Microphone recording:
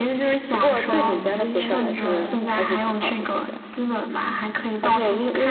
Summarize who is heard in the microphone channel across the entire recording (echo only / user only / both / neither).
both